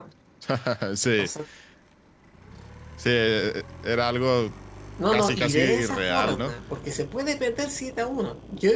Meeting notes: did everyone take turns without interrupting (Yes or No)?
No